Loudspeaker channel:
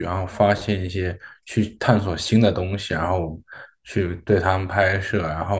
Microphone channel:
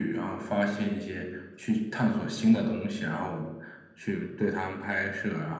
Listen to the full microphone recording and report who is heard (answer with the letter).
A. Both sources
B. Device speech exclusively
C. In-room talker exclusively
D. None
B